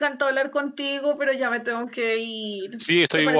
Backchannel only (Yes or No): No